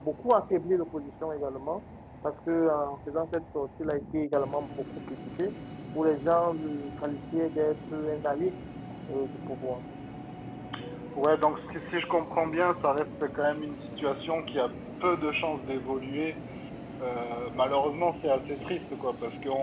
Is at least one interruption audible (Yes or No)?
No